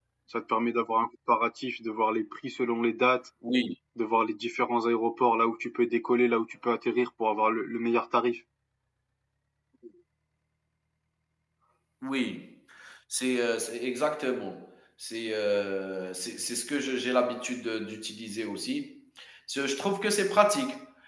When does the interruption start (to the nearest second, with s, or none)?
none